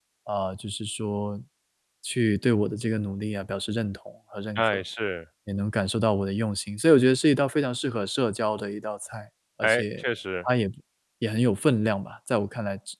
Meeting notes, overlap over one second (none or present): none